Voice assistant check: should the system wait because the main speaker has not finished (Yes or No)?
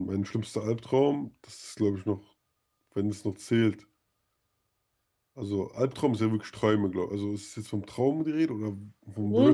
No